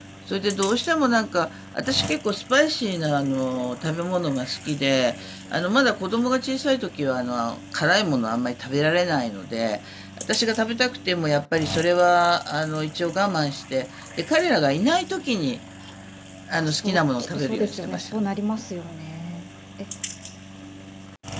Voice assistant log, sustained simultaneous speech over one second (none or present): present